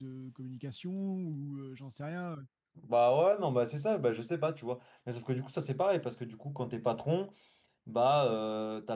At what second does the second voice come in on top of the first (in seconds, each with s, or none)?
none